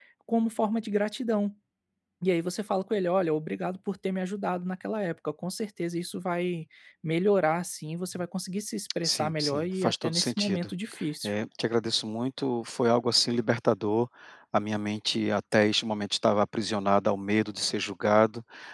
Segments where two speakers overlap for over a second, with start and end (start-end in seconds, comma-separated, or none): 9.0-10.7